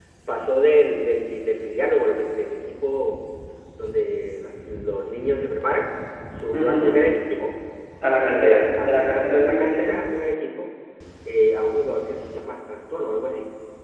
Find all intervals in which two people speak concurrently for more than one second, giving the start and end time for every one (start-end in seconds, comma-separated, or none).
8.2-10.0